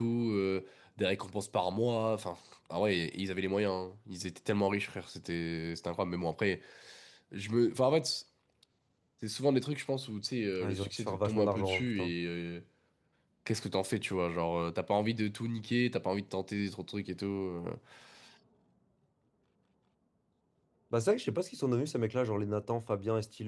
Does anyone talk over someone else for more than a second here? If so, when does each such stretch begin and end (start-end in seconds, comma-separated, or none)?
10.6-12.1